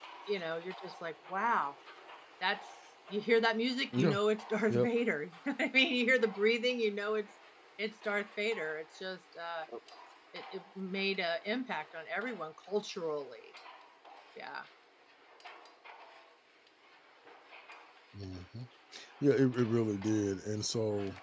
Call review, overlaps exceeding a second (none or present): none